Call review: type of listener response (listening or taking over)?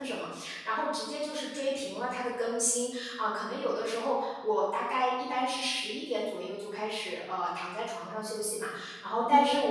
listening